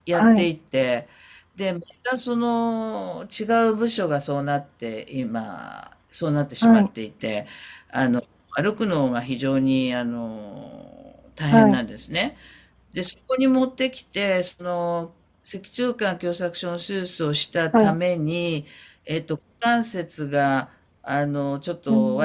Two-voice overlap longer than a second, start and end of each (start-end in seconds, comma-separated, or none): none